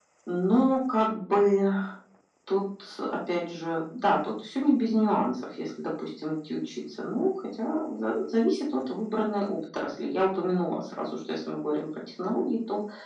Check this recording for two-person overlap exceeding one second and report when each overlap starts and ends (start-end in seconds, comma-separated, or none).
none